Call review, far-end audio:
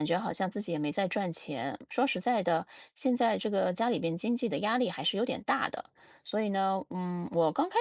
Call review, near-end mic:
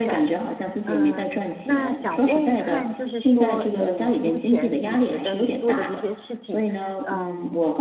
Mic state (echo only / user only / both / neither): both